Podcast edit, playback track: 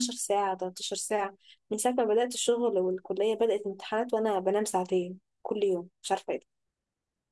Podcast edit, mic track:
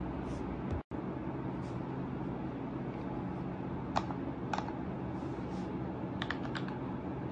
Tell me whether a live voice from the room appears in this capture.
No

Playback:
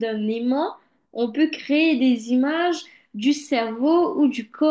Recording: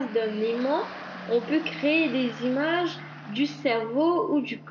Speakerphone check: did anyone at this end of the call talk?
No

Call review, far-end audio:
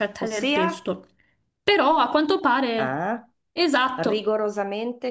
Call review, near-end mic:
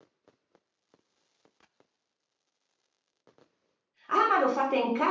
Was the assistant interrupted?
Yes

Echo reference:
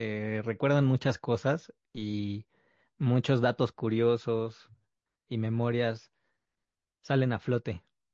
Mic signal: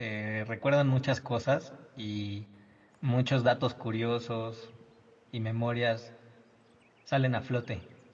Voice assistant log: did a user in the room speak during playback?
No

